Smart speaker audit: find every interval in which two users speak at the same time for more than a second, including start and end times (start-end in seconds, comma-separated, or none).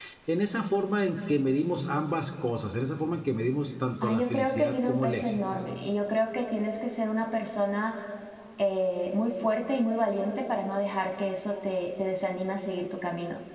4.0-5.4